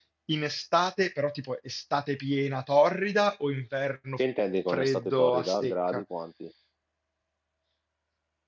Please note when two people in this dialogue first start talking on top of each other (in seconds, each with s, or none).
4.7 s